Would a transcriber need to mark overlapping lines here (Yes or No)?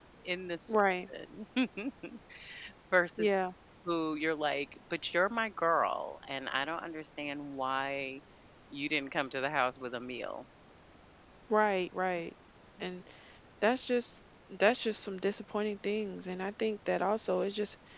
No